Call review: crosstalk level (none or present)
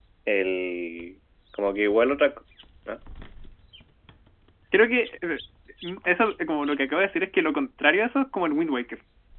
none